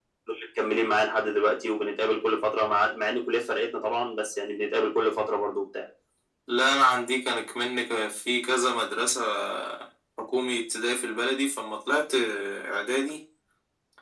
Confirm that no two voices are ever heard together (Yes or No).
Yes